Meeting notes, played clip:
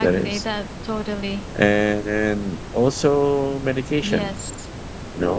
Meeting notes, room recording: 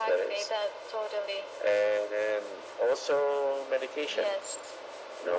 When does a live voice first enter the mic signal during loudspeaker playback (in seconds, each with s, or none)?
none